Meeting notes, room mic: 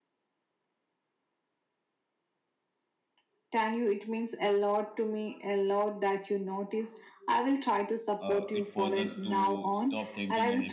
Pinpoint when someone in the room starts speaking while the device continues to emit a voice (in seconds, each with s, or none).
8.2 s